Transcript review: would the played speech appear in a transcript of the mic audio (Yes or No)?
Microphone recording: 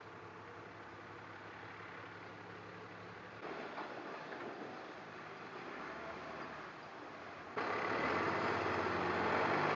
No